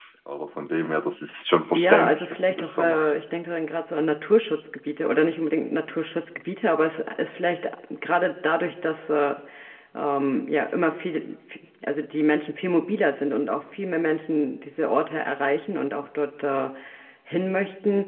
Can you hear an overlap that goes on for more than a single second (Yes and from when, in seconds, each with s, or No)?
Yes, from 1.7 s